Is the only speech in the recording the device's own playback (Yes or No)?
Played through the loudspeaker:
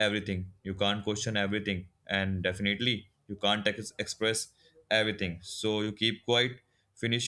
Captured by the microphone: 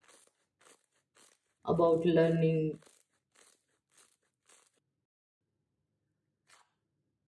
No